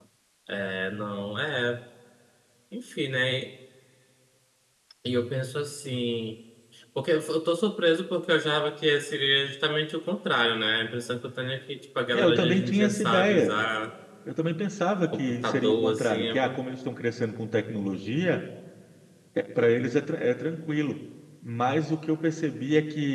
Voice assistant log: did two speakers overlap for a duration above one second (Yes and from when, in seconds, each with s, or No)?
Yes, from 12.1 s